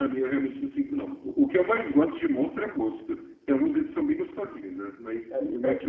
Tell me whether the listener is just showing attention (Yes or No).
No